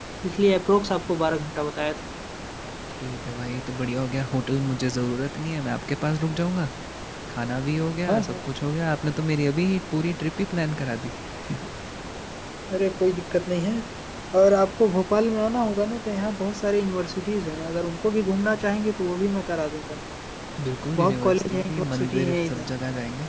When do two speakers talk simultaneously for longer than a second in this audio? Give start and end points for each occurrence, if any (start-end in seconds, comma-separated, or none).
21.0-22.7